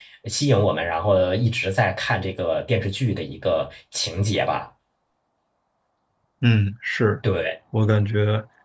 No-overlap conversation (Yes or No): Yes